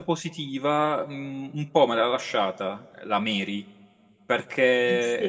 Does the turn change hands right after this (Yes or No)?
No